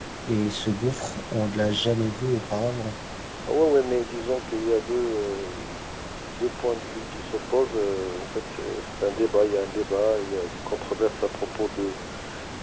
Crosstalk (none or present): none